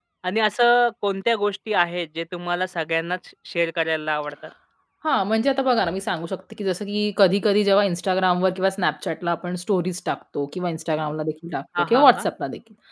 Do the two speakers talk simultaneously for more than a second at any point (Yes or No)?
No